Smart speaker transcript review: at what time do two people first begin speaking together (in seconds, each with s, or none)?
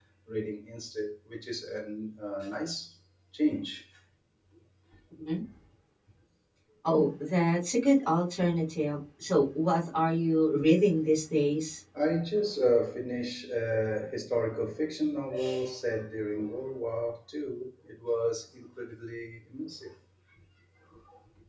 none